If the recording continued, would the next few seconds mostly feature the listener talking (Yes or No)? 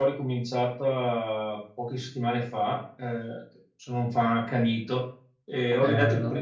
No